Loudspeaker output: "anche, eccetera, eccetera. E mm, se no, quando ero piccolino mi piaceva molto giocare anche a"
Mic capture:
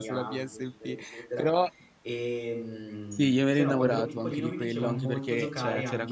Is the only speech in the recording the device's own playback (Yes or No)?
No